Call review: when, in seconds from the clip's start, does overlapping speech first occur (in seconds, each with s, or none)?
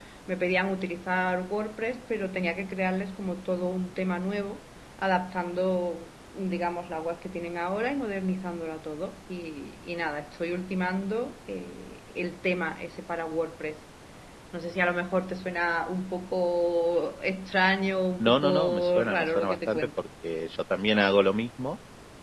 18.2 s